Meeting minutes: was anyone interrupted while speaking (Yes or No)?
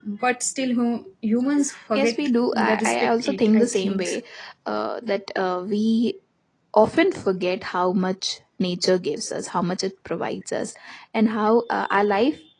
Yes